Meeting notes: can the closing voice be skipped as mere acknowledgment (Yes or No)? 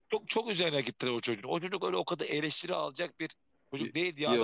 Yes